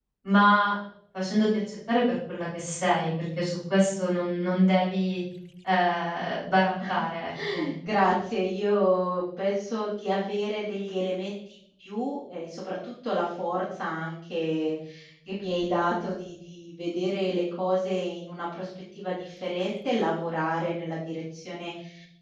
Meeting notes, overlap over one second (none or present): none